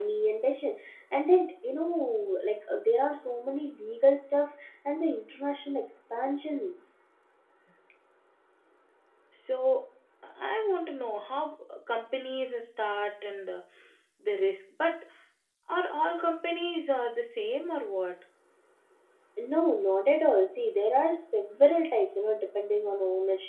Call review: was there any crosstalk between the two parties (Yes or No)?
No